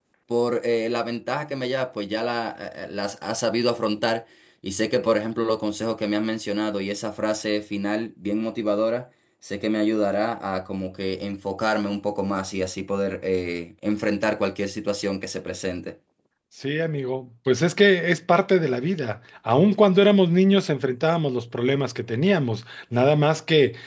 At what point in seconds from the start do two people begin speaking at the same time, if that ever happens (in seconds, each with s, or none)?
none